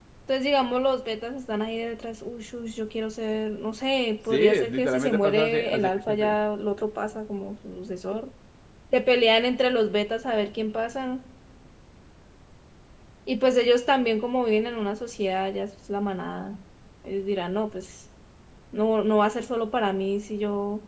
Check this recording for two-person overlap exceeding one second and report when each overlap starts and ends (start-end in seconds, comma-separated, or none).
4.3-6.3